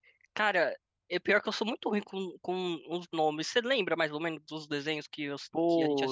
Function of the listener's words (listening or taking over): taking over